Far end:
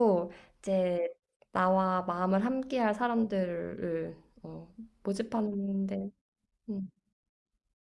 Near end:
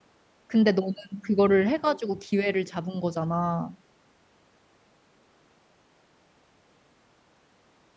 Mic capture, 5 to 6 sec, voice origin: neither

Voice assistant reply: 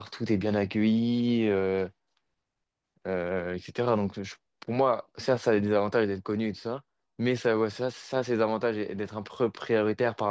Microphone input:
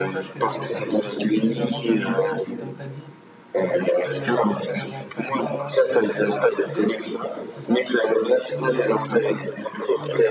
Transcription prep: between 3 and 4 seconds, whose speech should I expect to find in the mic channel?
both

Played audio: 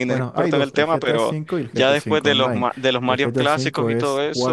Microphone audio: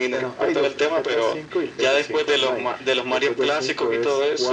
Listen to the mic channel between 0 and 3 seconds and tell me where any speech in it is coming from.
echo only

